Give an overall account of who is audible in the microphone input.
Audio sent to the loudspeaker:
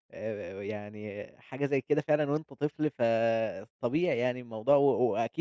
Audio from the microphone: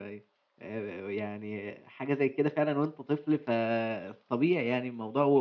echo only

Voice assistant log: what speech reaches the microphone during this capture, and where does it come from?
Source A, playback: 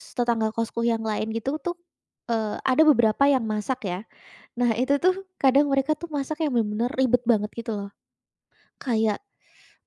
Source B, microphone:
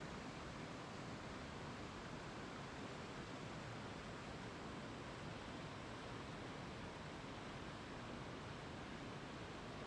neither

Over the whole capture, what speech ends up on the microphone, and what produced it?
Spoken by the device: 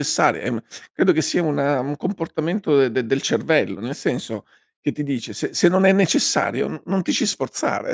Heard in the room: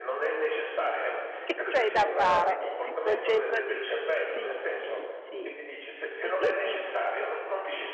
both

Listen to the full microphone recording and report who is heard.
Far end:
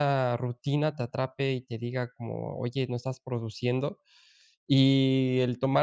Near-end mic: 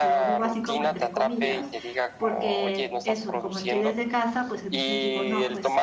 both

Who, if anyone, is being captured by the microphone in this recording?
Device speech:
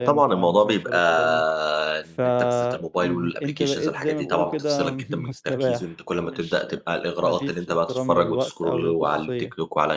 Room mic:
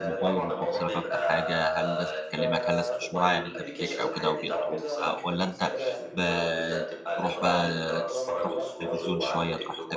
both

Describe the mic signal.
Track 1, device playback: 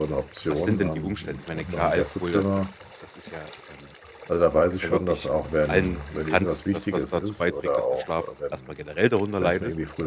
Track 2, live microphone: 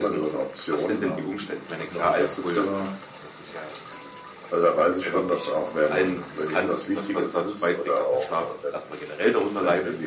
echo only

